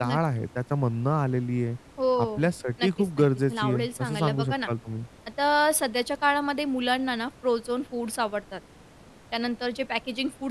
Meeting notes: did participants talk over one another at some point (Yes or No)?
Yes